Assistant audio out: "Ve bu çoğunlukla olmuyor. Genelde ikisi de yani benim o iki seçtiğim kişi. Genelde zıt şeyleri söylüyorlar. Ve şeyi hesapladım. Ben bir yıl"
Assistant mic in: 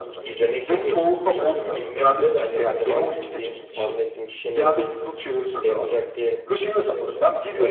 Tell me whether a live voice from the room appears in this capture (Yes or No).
Yes